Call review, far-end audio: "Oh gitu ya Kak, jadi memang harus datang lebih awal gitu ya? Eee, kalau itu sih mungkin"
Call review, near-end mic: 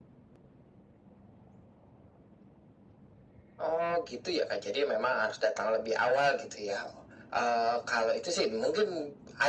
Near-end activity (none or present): none